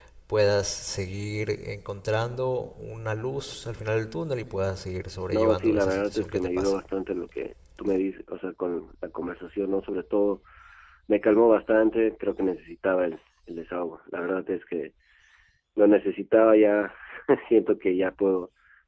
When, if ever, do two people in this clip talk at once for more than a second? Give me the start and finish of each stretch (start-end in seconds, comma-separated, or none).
5.3-6.8